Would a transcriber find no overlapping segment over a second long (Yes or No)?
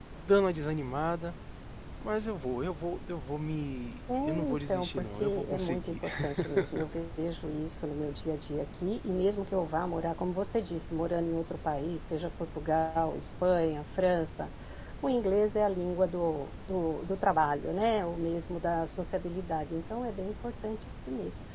No